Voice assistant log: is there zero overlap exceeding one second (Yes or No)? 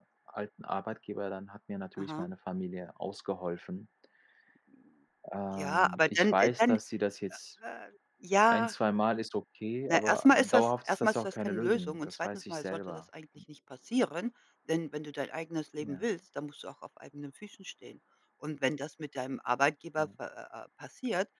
No